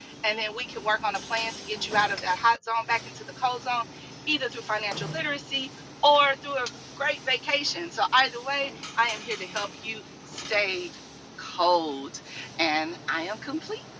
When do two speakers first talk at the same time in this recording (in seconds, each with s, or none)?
none